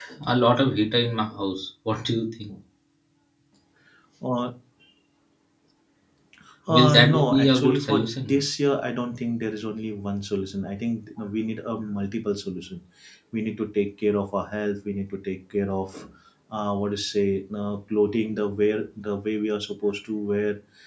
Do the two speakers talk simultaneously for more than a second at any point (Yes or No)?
Yes